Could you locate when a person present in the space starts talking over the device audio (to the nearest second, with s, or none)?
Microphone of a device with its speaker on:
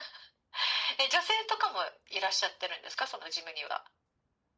none